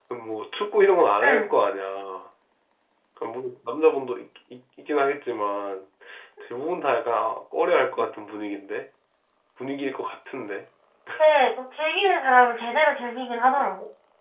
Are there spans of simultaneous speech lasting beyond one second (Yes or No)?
No